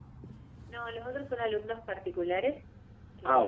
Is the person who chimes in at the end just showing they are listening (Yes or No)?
Yes